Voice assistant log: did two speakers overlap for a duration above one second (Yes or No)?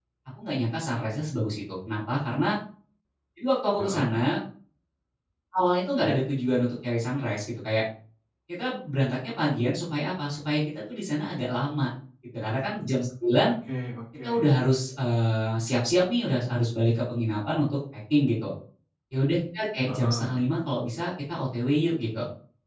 No